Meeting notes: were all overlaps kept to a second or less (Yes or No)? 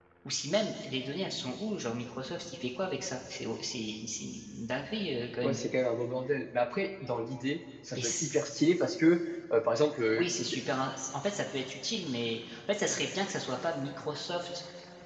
Yes